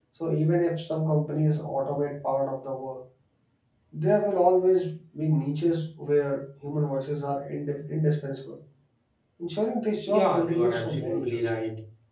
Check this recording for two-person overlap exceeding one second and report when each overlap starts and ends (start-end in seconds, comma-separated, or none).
10.1-11.4